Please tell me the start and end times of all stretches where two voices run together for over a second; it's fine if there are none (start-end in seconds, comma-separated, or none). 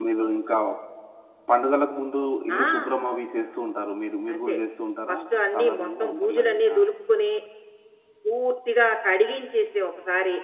5.6-6.8